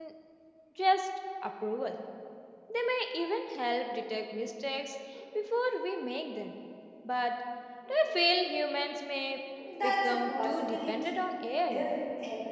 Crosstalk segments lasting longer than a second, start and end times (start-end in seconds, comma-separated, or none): 9.8-11.1